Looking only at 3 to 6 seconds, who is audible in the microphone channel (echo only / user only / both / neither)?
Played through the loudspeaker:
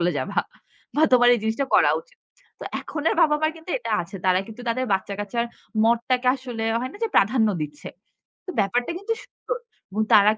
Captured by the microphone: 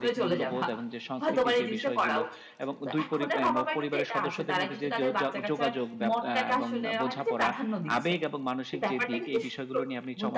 both